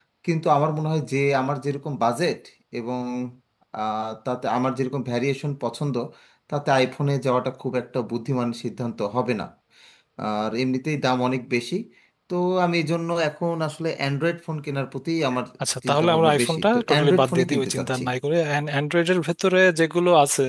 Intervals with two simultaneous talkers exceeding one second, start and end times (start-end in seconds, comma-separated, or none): 15.9-18.0